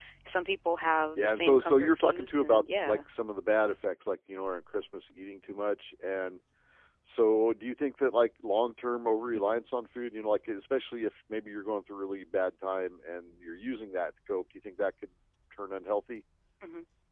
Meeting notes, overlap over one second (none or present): present